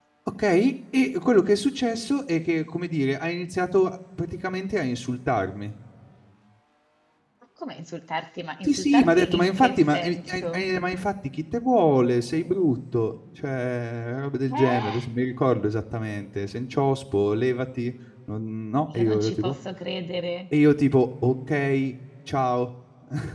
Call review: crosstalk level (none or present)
present